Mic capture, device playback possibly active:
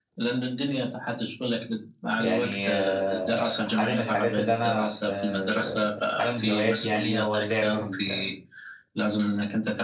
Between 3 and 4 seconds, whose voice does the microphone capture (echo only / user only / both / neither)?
both